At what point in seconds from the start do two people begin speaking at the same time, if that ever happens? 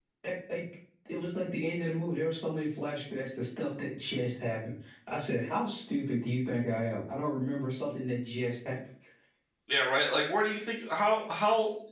none

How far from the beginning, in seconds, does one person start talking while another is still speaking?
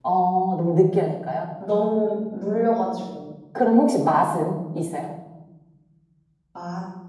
none

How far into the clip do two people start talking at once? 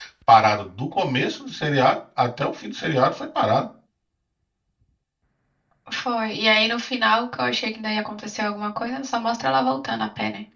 none

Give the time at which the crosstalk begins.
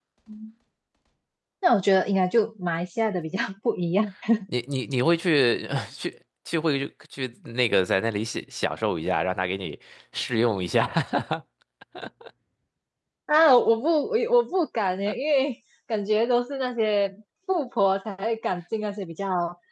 none

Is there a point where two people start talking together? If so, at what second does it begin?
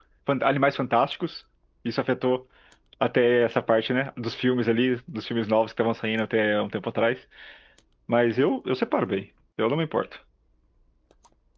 none

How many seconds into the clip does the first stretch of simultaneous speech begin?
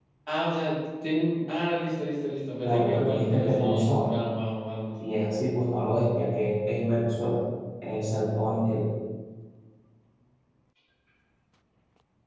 2.6 s

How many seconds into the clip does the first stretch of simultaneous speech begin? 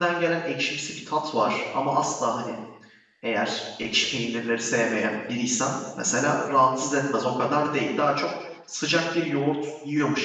none

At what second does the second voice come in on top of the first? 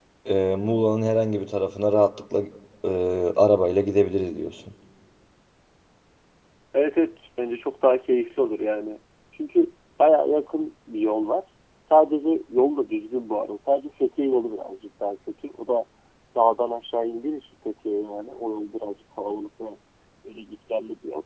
none

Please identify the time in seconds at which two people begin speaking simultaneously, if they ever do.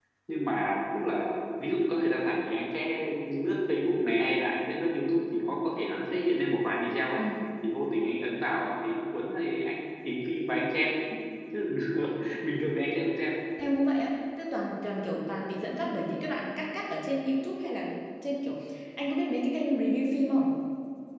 none

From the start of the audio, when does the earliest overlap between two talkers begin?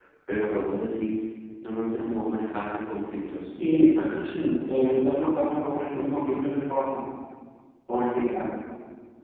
none

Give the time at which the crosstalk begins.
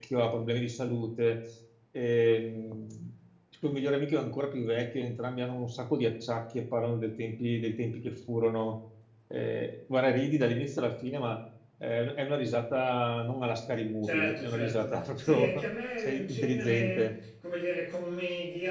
14.0 s

